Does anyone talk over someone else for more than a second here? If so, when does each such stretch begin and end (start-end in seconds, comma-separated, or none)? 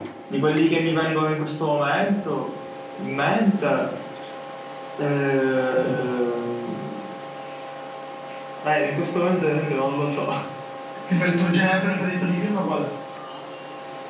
none